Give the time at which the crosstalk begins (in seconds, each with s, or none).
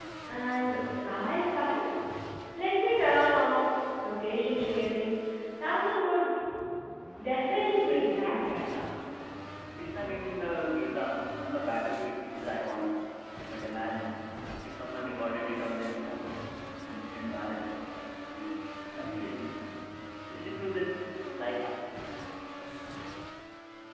7.5 s